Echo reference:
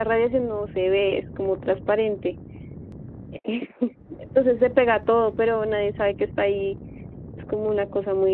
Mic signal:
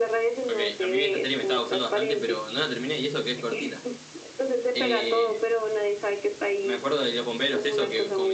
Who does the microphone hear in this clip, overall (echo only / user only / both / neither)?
both